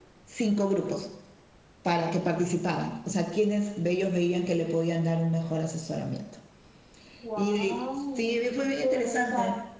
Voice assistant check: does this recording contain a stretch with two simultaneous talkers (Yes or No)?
Yes